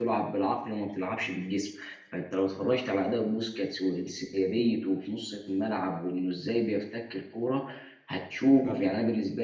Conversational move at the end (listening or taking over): listening